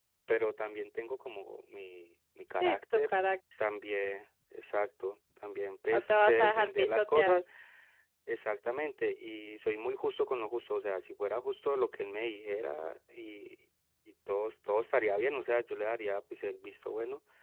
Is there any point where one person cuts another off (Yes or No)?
Yes